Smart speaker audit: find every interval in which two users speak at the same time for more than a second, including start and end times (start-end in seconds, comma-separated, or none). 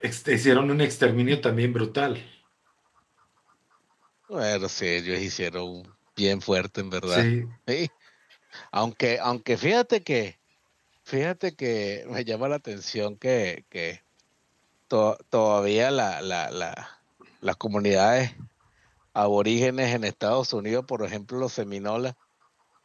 none